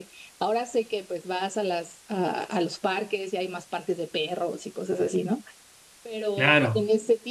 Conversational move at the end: listening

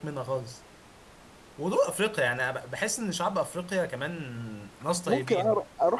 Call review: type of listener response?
taking over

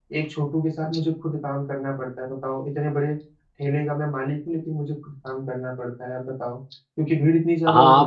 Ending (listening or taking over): taking over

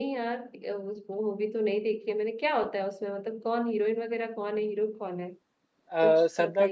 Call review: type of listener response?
taking over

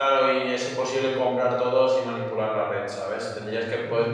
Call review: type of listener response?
listening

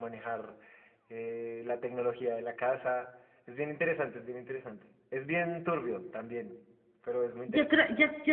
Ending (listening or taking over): taking over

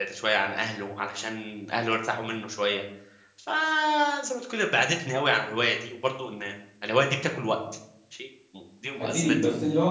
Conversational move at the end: taking over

